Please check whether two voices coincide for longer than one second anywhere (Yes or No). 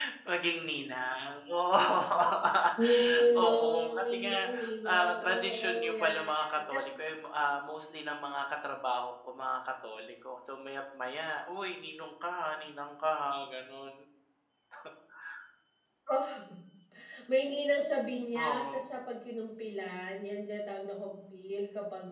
Yes